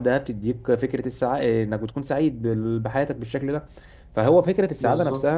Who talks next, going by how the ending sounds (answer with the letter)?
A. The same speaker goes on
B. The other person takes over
A